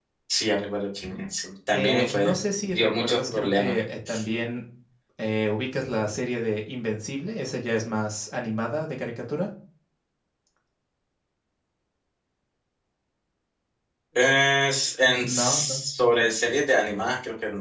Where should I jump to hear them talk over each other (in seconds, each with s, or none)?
1.7 s